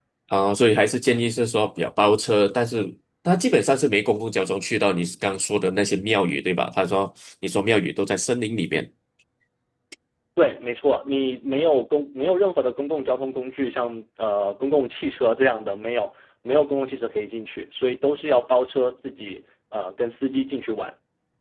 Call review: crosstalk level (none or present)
none